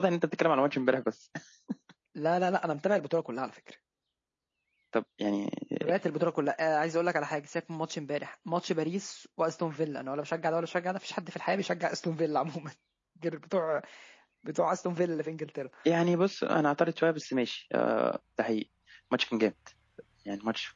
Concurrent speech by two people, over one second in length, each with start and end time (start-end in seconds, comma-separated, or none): none